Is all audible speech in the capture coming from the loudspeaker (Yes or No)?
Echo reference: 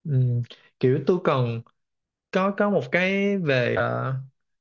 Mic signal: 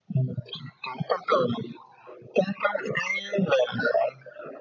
Yes